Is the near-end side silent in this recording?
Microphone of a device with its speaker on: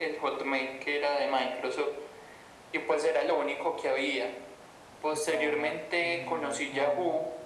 No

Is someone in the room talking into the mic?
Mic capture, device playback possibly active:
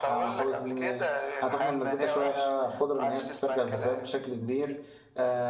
Yes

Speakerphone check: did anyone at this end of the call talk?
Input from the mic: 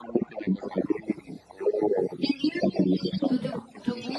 Yes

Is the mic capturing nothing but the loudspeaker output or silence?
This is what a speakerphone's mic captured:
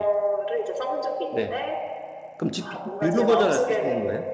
No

